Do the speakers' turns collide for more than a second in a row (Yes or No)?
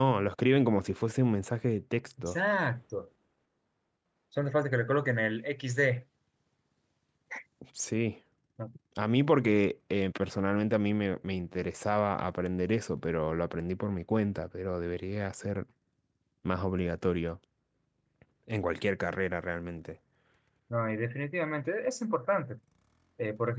No